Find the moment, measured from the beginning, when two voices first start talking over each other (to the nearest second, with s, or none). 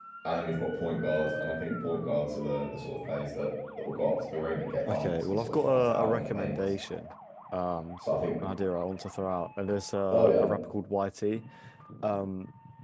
5 s